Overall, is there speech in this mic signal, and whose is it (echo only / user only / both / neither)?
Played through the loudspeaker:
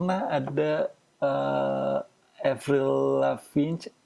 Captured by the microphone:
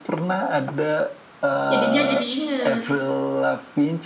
both